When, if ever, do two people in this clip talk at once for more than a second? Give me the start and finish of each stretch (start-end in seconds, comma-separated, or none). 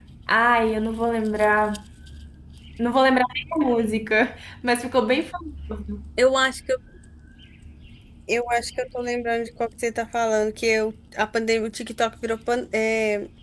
none